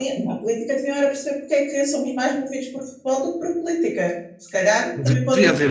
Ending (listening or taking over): taking over